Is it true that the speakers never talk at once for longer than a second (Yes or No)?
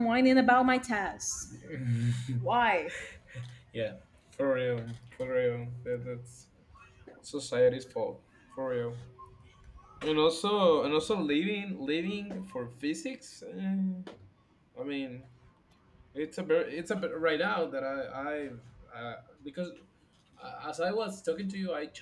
Yes